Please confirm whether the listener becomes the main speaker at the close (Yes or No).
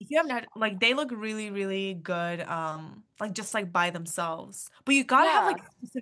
No